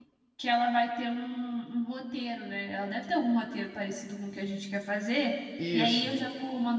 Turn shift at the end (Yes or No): No